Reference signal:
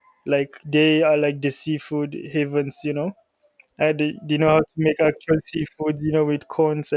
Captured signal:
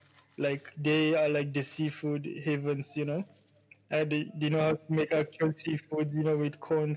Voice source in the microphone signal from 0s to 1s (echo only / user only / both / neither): echo only